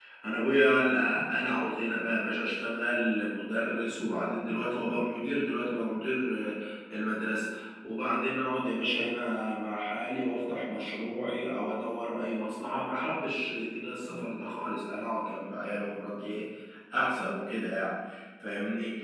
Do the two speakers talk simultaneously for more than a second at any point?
No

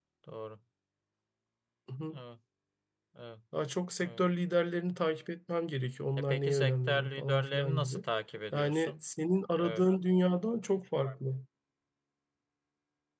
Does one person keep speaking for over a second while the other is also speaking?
Yes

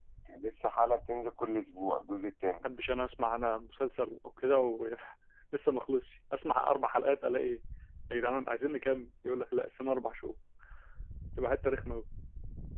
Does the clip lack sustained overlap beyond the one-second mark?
Yes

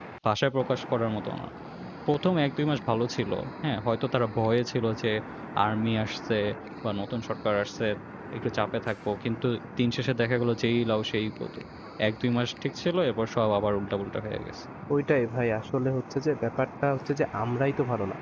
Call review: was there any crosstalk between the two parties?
No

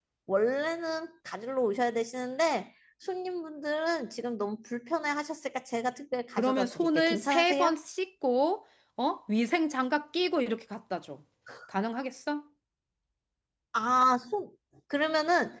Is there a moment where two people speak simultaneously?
Yes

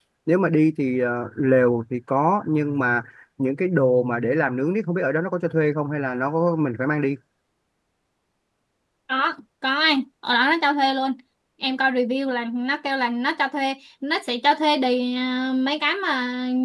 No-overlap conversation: Yes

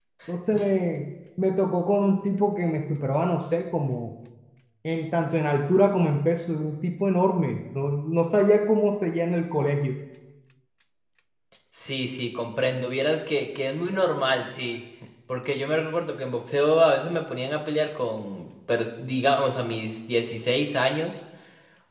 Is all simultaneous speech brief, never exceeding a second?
Yes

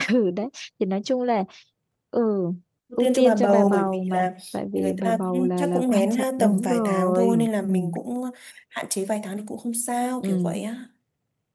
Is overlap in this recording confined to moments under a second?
No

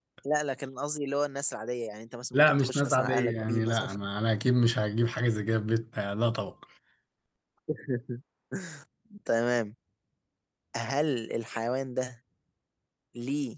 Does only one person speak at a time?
No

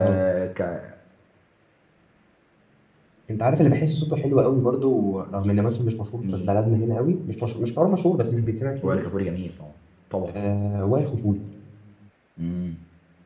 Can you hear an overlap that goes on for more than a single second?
No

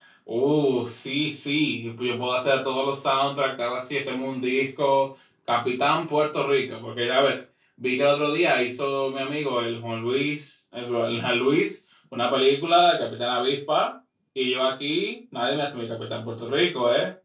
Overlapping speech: No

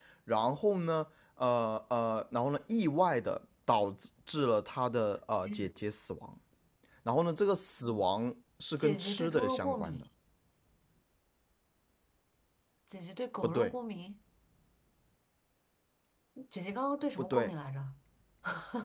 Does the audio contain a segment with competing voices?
Yes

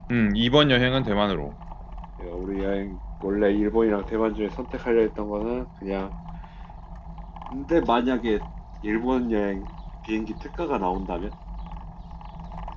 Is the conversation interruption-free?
Yes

